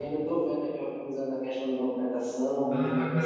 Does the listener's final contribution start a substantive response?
Yes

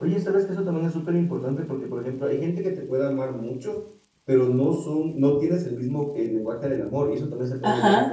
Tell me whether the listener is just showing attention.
No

